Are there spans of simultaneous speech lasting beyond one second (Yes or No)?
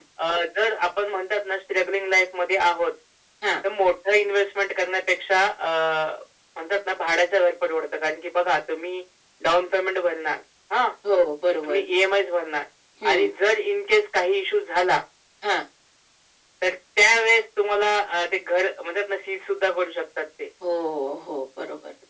No